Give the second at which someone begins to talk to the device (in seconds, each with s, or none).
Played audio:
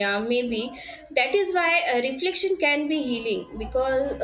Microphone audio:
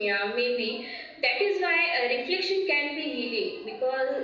none